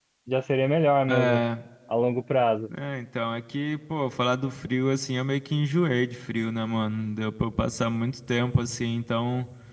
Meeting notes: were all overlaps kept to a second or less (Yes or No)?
Yes